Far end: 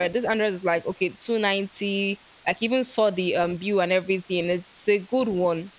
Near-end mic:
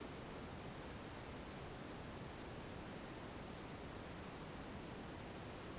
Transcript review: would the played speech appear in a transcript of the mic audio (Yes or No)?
No